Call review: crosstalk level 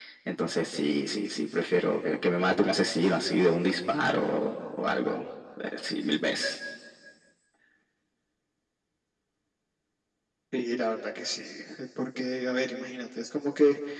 none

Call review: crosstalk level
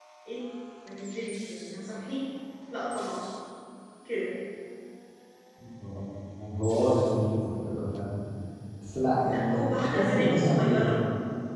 present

